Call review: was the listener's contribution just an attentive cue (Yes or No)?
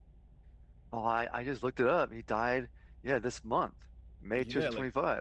No